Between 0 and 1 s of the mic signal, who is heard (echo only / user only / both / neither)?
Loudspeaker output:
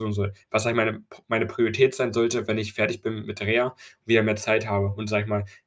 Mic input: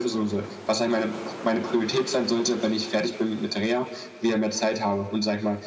echo only